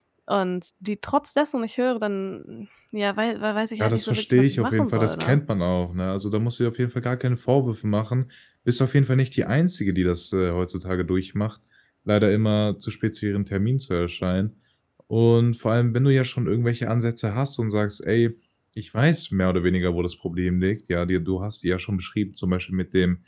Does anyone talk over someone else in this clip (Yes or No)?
Yes